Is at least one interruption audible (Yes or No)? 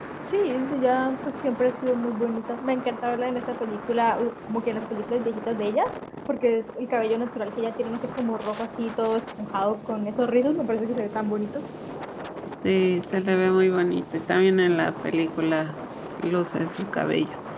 No